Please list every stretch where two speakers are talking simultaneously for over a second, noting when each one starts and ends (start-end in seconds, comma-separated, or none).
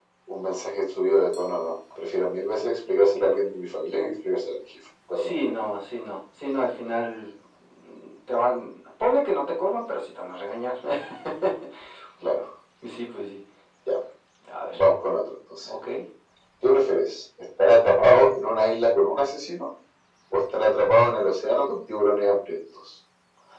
none